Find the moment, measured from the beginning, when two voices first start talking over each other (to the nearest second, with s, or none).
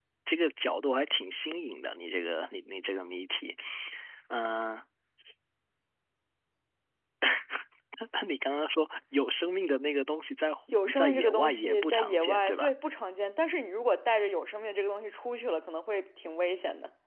11 s